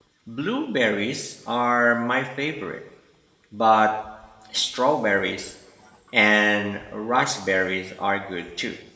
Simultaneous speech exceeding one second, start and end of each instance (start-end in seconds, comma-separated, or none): none